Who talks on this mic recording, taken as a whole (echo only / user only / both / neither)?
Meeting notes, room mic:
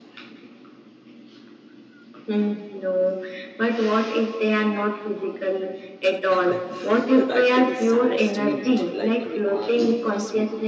both